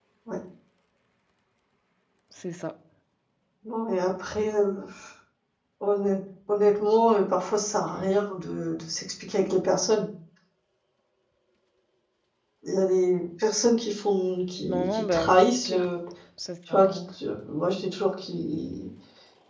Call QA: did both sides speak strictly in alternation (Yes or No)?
No